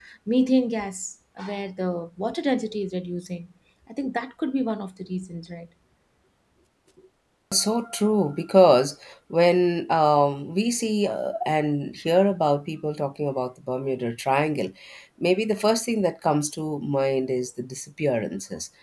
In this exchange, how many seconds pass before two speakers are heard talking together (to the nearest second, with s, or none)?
none